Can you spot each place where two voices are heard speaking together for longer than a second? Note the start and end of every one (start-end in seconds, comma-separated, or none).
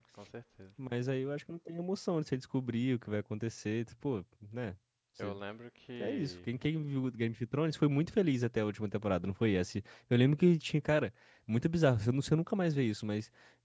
none